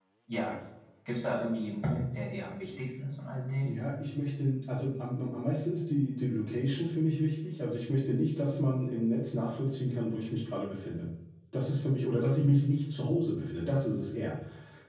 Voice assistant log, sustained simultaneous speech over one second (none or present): none